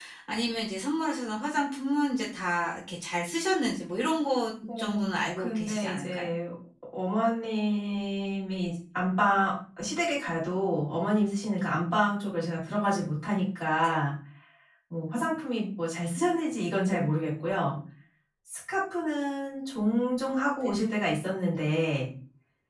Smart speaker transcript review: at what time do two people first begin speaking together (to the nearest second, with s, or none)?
5 s